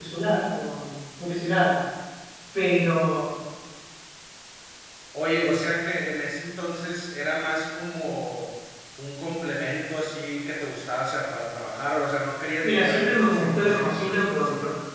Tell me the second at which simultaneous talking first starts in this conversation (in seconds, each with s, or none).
12.6 s